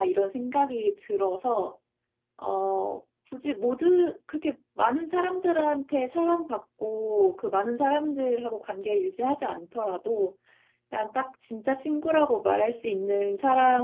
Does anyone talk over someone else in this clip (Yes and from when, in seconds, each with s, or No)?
No